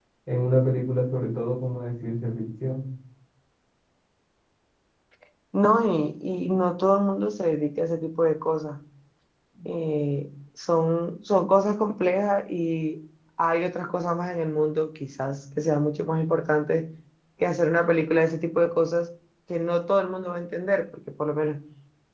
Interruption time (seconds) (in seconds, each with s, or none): none